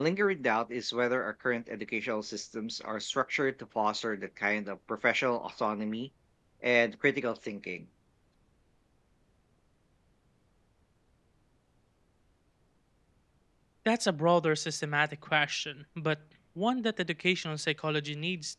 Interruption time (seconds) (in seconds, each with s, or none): none